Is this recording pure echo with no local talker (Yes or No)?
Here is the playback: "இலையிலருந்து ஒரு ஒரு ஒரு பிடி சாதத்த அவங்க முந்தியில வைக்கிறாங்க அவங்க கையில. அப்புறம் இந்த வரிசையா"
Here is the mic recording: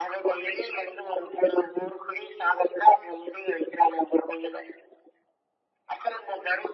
Yes